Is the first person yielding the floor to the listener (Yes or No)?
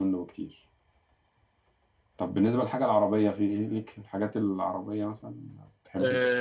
Yes